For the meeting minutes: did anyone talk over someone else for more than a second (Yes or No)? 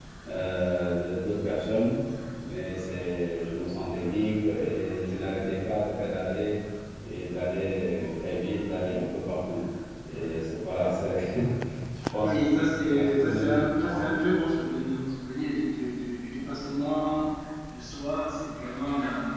Yes